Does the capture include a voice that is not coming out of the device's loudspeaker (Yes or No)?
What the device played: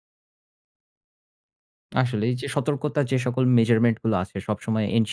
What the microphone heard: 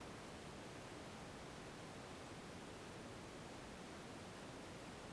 No